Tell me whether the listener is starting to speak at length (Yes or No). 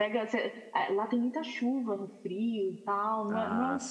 No